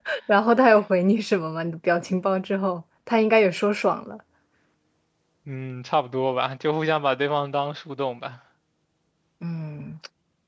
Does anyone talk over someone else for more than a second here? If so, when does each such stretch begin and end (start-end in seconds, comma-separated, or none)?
none